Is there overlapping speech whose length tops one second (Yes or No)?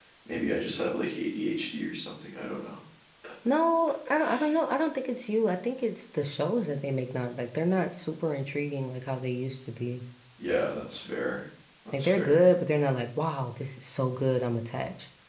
No